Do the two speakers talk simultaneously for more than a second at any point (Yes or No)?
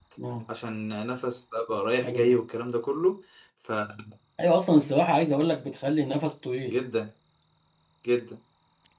No